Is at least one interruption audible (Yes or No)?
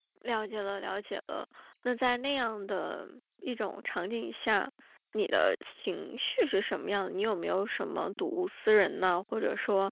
No